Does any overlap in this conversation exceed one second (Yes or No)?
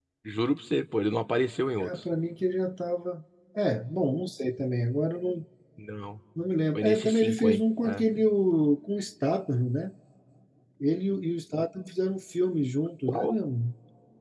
Yes